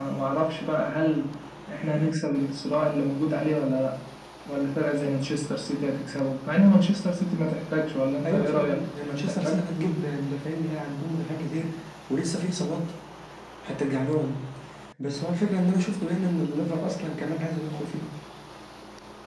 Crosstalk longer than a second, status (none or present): present